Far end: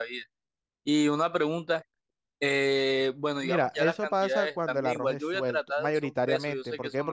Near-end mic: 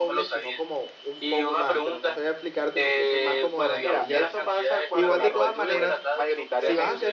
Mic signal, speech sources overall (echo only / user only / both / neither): both